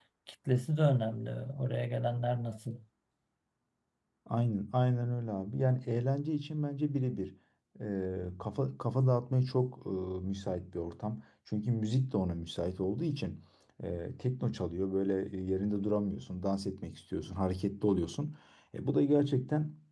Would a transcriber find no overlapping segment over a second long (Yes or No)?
Yes